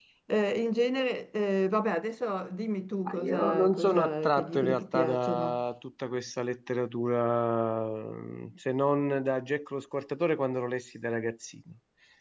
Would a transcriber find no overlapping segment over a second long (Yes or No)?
No